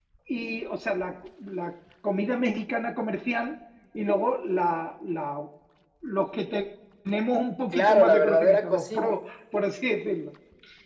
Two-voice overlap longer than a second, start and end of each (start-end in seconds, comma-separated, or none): 7.7-9.1